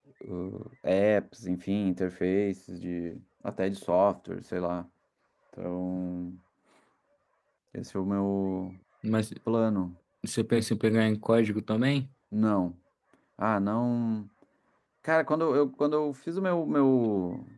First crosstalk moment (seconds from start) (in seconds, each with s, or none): none